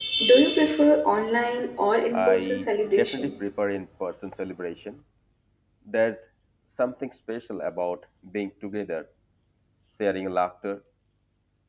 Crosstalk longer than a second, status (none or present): present